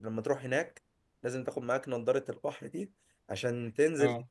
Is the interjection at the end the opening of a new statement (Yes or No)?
No